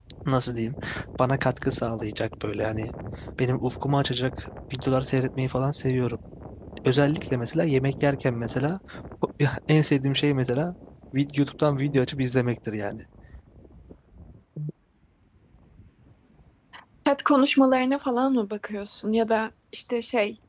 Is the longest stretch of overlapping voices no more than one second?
Yes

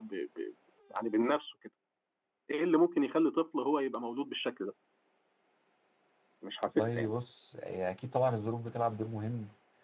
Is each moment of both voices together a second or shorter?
Yes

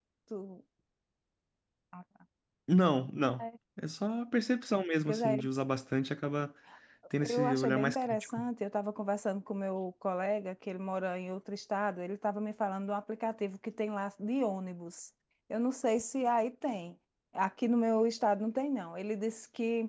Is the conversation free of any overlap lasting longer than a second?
No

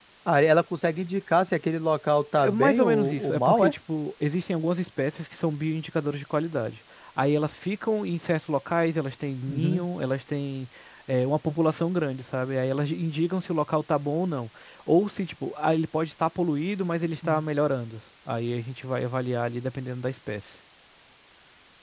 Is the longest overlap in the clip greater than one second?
Yes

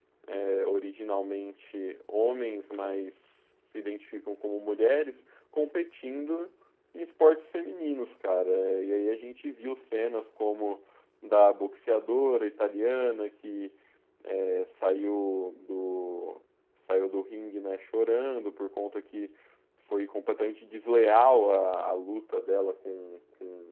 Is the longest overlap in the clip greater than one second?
No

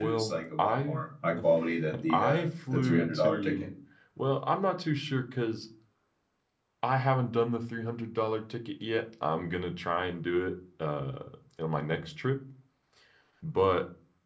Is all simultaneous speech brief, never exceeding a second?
No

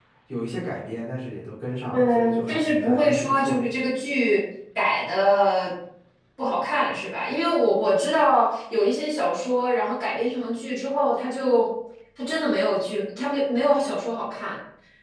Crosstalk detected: Yes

